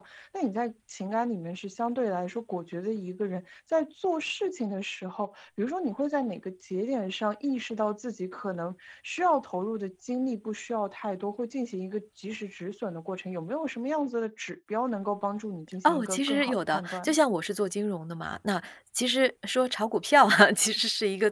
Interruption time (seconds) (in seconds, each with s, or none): 15.8 s